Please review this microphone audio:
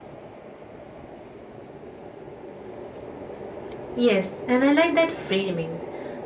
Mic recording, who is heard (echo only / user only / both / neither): user only